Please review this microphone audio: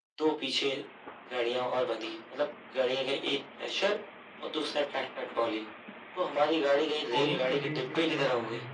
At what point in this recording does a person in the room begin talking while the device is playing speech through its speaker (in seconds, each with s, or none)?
7.1 s